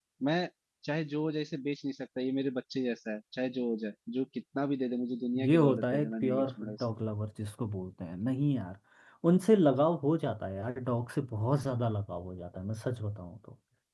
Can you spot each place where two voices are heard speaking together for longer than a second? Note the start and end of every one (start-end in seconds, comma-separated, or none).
5.4-6.9